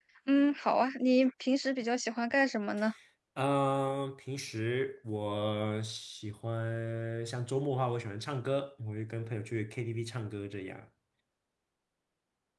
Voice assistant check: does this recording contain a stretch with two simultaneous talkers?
No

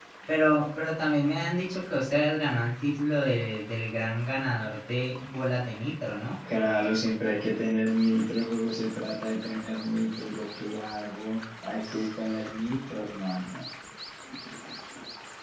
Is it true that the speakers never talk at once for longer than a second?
Yes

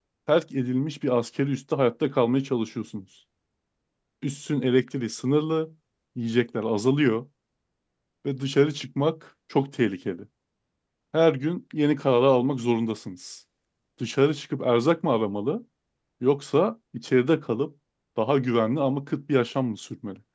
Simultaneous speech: No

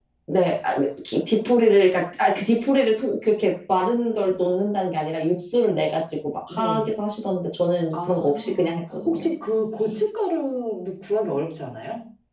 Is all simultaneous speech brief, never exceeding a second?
No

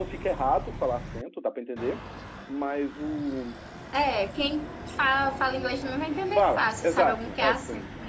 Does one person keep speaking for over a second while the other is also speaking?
Yes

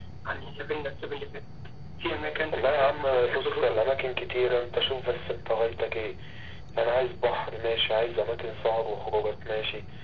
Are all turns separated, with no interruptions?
No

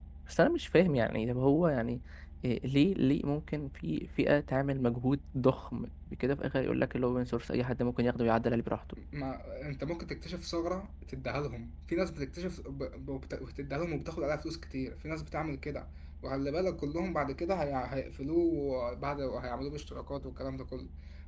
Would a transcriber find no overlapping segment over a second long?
Yes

